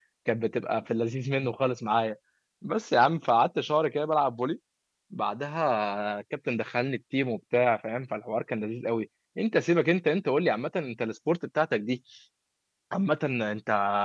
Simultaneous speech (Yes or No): No